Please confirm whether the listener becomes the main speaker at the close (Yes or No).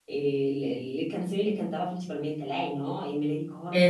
No